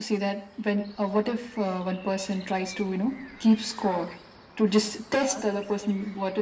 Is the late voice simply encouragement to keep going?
Yes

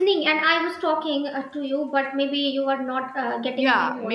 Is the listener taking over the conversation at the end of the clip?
Yes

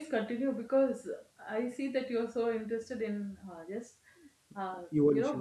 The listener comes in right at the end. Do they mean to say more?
No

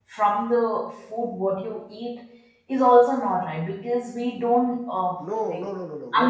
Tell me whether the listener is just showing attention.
No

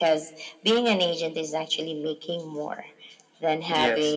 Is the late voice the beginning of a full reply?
No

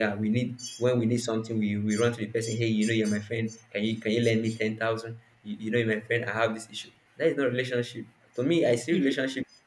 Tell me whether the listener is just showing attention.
Yes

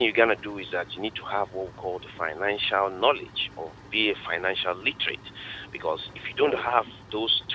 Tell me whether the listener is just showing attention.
Yes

